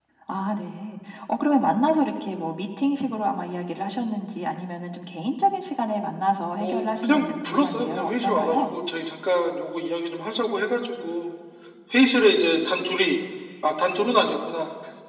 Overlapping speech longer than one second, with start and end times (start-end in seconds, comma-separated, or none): 6.5-8.7